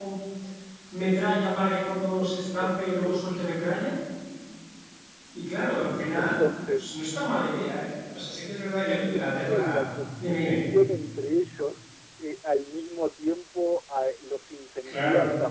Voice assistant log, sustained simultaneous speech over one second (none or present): present